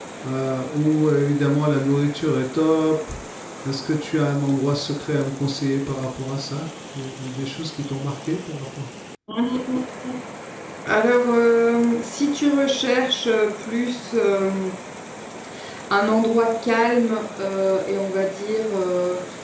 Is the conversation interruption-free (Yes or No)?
Yes